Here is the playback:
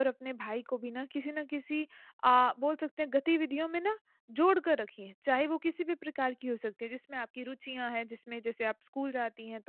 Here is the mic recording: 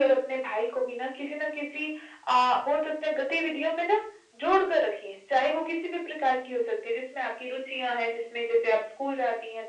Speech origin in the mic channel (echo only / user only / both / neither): echo only